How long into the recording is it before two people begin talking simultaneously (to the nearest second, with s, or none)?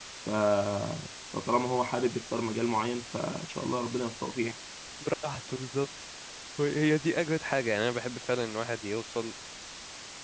none